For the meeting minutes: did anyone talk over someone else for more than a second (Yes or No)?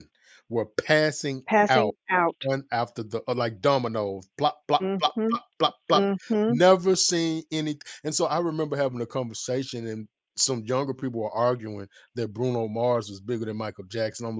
No